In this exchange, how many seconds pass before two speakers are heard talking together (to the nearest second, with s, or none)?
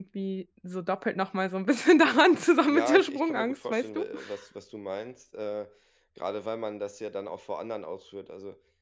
3 s